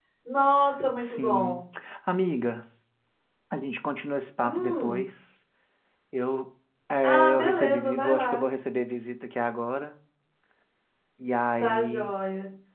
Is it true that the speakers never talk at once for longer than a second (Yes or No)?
No